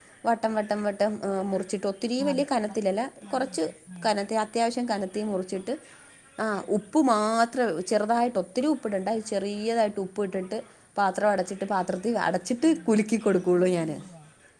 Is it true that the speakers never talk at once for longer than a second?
Yes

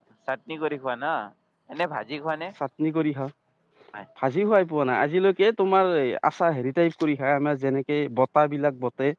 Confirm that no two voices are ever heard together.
Yes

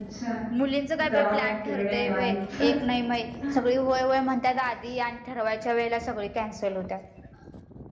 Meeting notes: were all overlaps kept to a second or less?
No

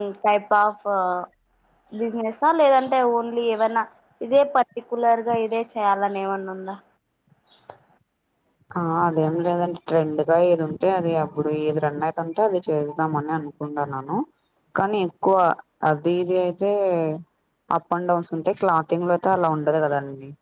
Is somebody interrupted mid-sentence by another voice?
No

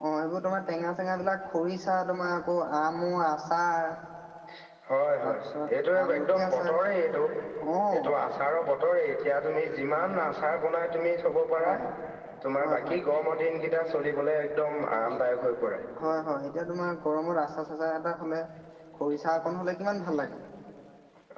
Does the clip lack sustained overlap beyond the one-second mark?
No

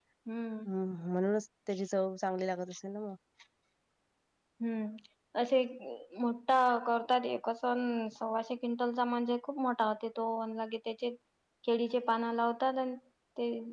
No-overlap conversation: Yes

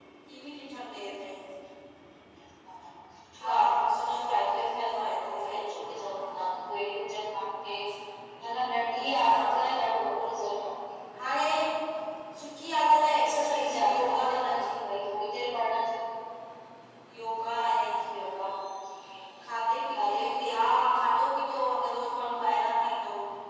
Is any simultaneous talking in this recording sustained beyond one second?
Yes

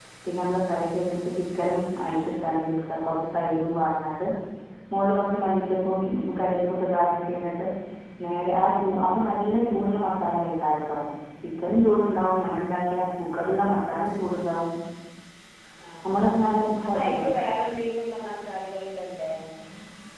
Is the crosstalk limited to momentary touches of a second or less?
Yes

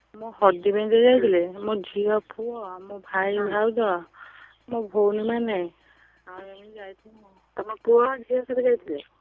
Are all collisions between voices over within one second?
Yes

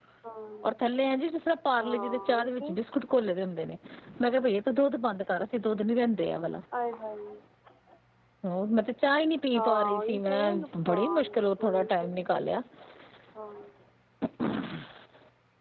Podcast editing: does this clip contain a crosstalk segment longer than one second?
Yes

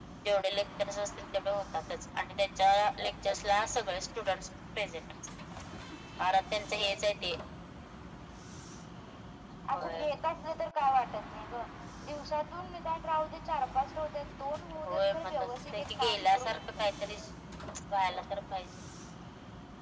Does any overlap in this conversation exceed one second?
Yes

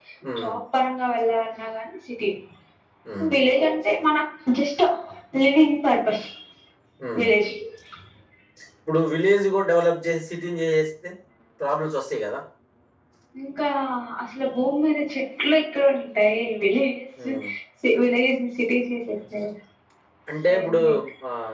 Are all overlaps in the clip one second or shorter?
Yes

